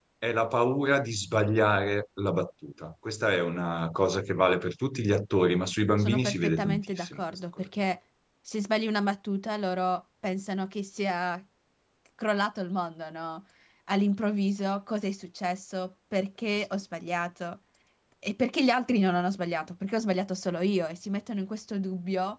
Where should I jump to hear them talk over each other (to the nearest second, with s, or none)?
6 s